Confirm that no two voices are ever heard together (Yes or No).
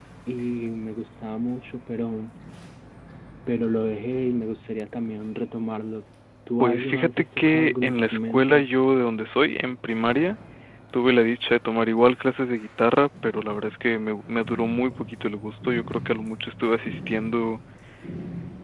No